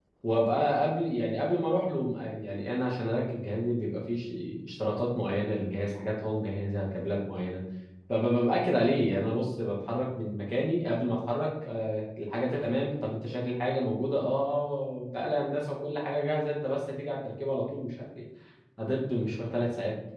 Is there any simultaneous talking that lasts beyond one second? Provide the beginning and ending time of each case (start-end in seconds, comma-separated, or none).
none